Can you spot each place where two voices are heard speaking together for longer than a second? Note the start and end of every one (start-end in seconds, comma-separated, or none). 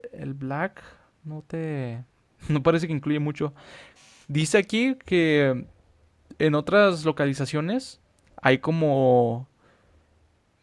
none